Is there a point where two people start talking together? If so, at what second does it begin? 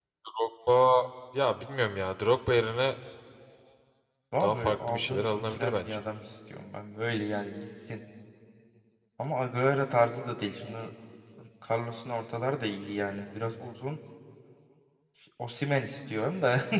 4.4 s

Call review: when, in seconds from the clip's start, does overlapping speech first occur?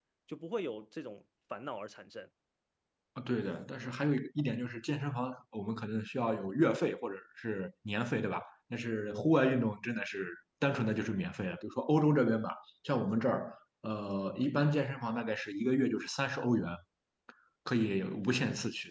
none

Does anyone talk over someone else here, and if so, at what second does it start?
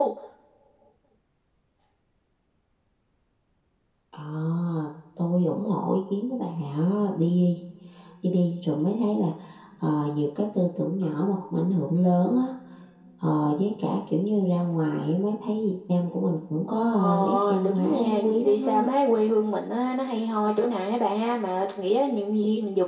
17.0 s

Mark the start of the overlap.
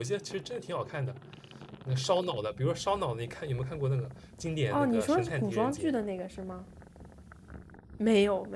4.7 s

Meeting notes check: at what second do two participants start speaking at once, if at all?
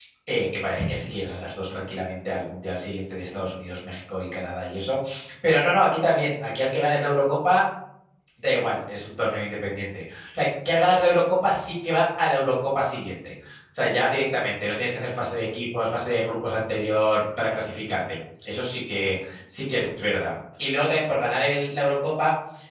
none

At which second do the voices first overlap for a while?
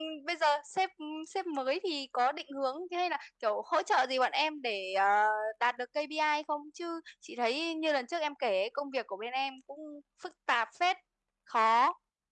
none

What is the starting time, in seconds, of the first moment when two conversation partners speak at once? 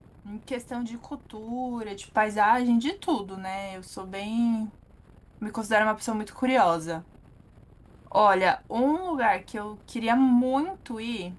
none

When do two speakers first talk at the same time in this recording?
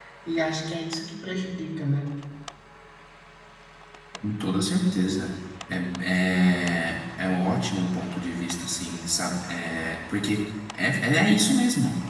none

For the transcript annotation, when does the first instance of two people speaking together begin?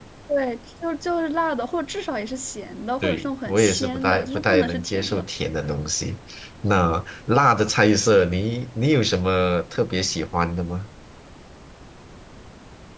3.0 s

